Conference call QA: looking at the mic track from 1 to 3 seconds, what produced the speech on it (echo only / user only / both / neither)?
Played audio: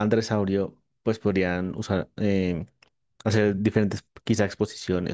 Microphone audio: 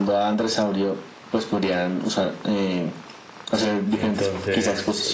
echo only